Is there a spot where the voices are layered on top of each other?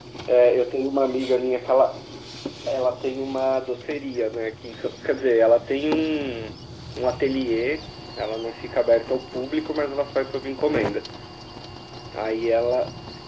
No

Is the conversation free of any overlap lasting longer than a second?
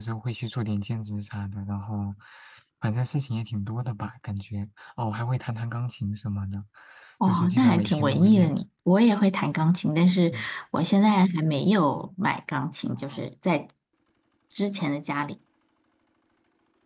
No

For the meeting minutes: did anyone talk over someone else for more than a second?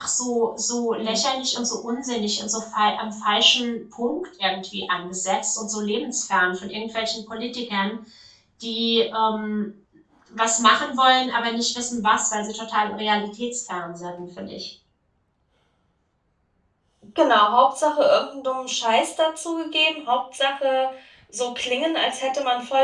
No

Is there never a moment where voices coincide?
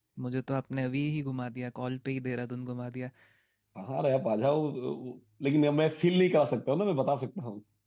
Yes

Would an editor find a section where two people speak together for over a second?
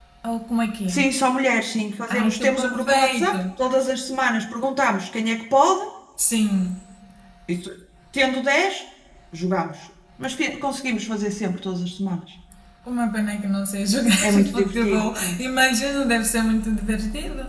Yes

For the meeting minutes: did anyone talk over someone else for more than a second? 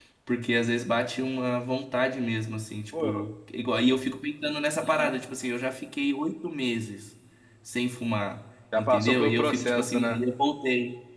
Yes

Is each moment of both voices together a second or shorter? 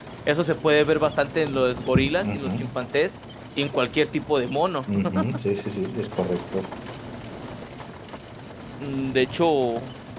Yes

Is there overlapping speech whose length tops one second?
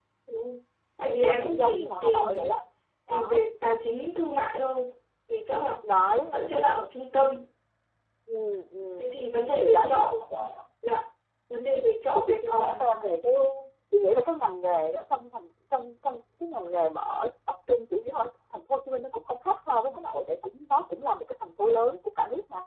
Yes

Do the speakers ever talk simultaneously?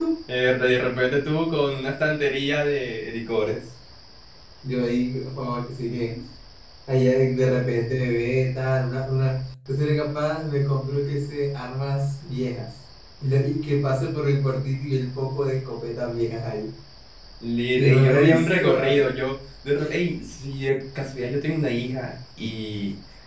Yes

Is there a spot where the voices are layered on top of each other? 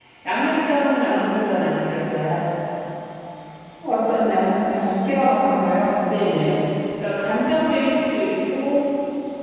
No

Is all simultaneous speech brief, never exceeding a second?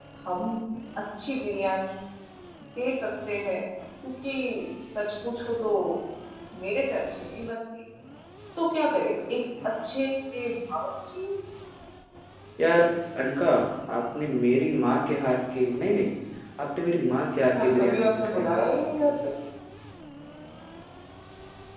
No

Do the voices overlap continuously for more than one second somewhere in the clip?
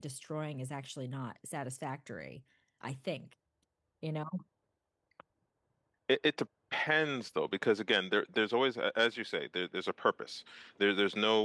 No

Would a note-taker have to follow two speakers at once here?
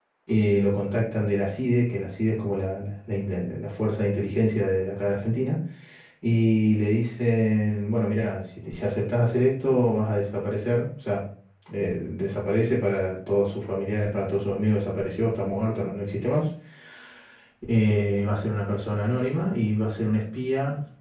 No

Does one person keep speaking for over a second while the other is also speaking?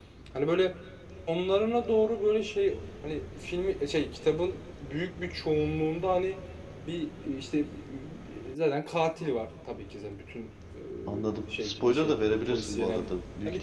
Yes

